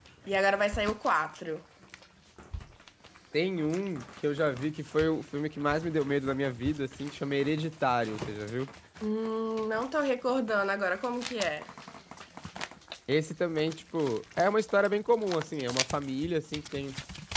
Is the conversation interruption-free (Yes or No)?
Yes